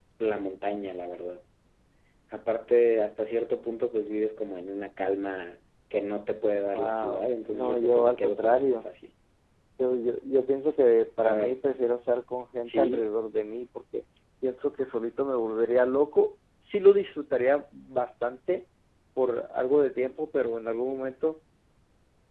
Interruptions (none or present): present